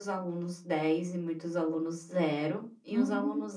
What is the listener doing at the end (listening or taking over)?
listening